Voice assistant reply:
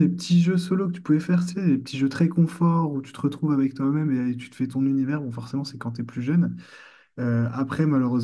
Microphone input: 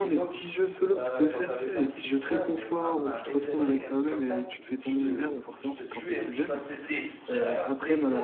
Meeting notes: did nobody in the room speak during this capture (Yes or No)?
No